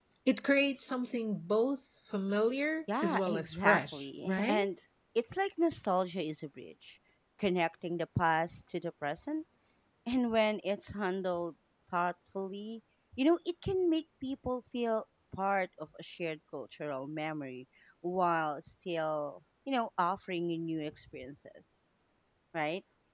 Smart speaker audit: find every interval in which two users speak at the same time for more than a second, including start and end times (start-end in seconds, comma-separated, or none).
3.0-4.7